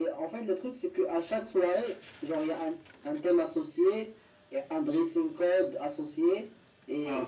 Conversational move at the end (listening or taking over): listening